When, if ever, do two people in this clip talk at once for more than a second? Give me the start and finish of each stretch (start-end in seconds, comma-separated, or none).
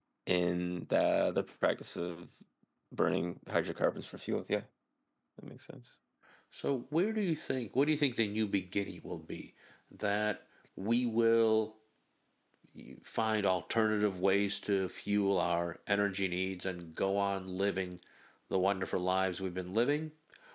none